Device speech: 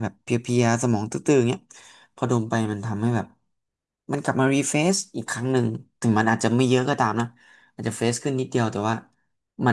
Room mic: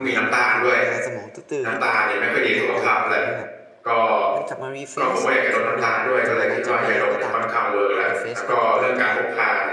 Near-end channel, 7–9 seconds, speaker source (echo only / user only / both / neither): both